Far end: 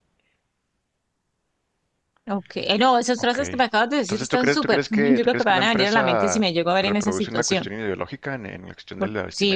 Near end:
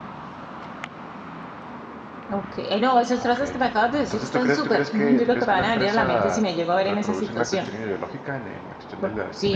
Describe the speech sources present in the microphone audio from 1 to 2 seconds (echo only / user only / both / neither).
neither